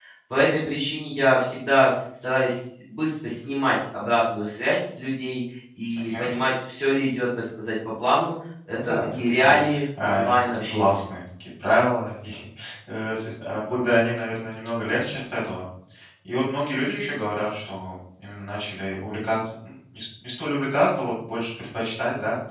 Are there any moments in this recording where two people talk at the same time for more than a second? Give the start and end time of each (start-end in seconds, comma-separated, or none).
8.7-11.0